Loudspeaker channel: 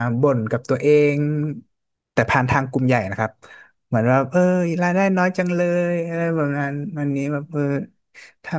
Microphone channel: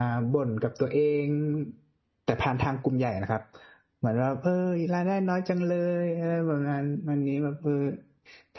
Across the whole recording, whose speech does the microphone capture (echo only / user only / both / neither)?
echo only